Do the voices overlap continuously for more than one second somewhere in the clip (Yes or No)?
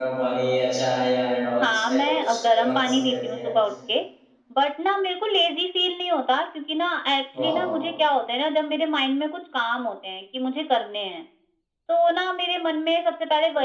Yes